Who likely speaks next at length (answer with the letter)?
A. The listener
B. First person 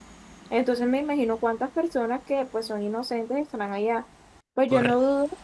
B